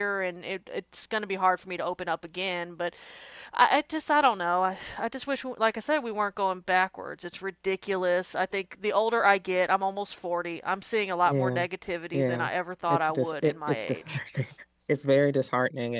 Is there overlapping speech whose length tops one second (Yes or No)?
Yes